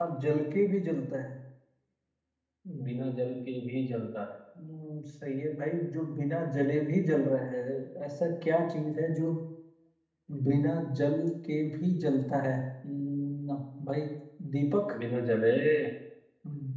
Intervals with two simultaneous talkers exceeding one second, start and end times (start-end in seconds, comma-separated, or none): none